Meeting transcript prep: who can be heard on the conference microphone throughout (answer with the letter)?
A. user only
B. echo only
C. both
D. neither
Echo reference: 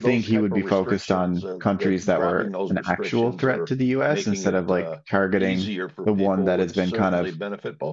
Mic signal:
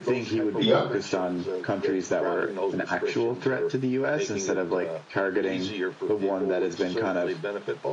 C